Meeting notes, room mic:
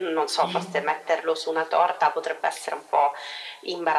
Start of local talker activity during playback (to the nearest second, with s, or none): 0 s